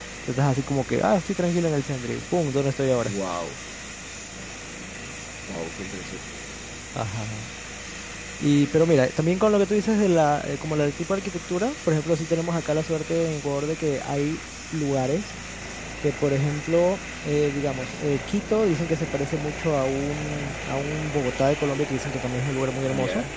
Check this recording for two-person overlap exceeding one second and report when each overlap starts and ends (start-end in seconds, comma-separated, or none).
none